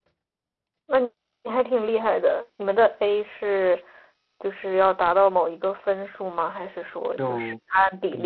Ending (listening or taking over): taking over